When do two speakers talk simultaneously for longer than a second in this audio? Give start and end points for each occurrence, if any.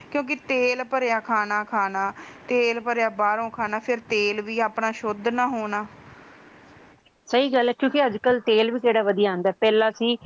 none

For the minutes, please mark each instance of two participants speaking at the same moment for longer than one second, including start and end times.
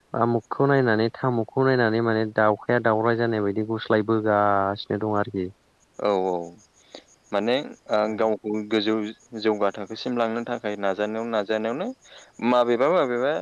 none

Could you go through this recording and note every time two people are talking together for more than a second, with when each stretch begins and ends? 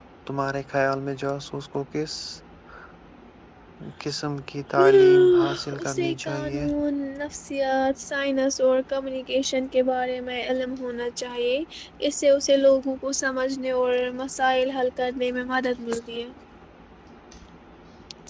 4.8-6.7

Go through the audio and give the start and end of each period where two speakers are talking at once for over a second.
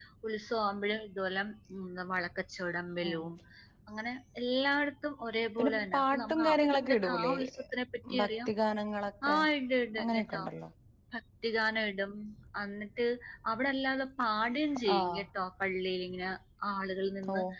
5.6-7.3

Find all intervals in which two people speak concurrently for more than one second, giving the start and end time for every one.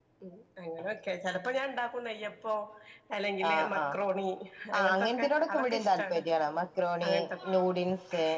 4.8-6.2

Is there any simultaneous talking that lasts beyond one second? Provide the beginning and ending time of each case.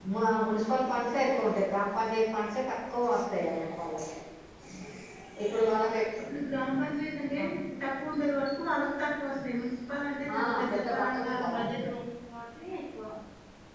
10.3-11.8

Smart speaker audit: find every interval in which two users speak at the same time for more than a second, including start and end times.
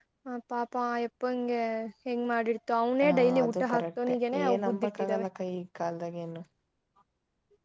3.0-5.3

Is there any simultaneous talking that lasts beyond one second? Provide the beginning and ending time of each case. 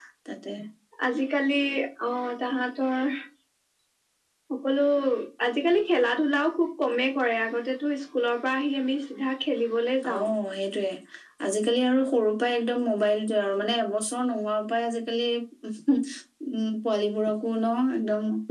none

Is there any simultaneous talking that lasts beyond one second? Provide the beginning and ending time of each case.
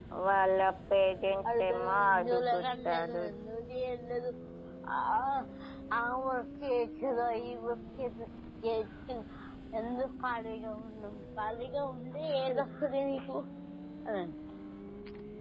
1.6-3.2

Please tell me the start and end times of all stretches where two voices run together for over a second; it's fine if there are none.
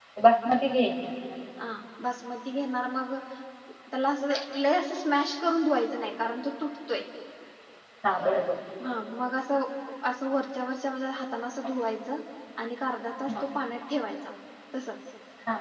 none

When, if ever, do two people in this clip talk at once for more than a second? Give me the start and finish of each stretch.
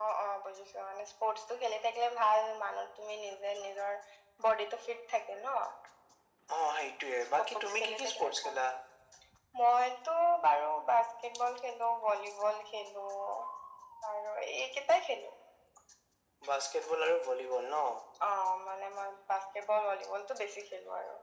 7.3-8.5

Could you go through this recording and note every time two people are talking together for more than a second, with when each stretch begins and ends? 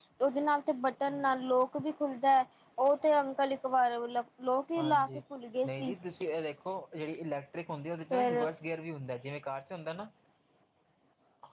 none

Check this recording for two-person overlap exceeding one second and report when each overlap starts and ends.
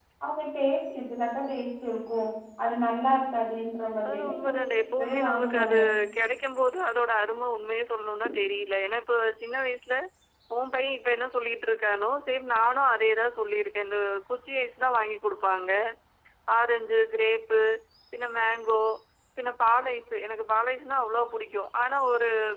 4.1-5.8

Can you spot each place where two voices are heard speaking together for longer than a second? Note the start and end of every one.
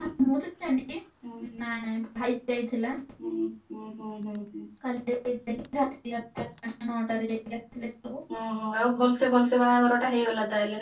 none

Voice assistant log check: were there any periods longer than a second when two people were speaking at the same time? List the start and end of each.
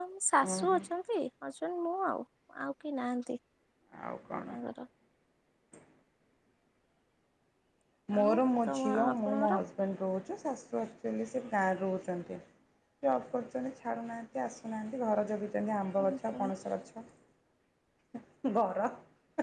8.2-9.6

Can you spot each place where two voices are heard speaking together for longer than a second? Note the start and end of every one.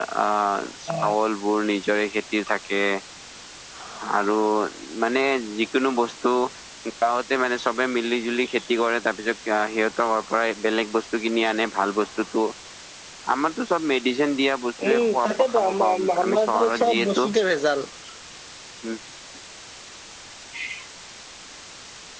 14.8-17.3

